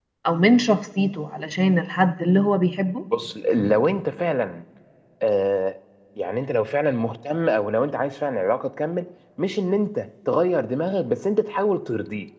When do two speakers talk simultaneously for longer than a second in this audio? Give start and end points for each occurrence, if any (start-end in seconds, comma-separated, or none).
none